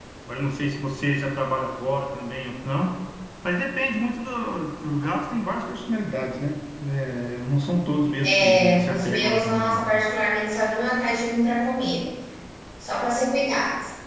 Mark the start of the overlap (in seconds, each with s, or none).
8.2 s